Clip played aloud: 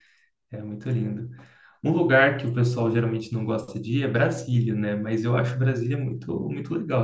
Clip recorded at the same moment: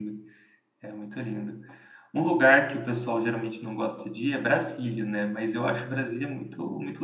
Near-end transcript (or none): none